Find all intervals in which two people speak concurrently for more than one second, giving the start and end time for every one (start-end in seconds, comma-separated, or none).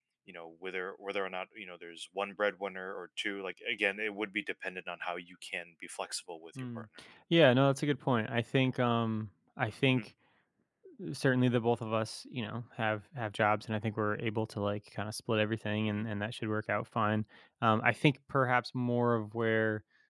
none